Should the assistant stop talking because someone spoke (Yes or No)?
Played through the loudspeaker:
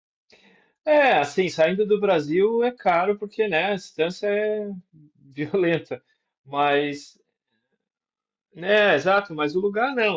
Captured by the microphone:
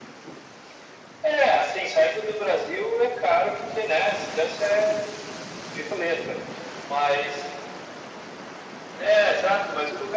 No